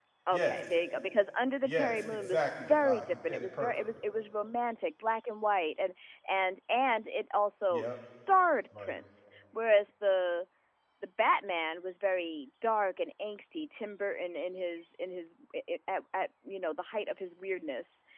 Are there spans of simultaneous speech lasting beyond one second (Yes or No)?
Yes